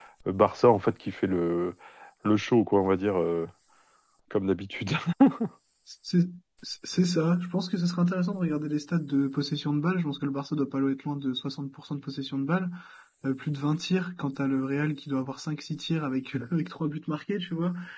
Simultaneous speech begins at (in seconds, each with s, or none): none